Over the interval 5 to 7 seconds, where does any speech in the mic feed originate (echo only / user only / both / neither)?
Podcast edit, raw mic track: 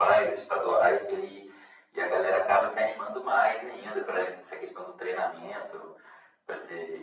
echo only